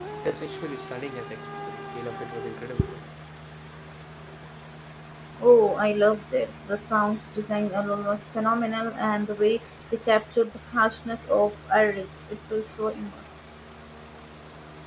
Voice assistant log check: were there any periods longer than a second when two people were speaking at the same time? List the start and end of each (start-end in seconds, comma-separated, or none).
none